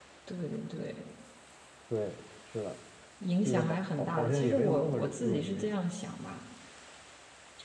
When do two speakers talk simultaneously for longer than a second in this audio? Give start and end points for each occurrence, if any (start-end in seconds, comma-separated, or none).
3.4-5.7